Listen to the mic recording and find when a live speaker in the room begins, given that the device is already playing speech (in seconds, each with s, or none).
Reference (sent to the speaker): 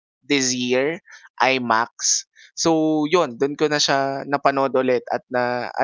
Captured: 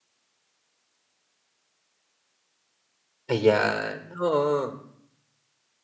3.3 s